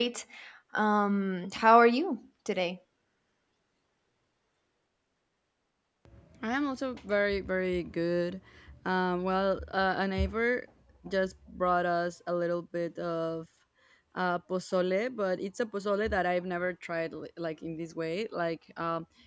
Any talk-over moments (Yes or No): No